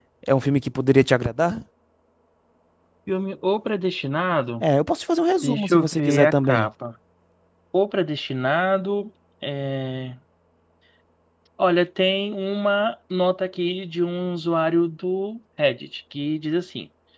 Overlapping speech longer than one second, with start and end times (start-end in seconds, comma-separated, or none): 5.4-6.7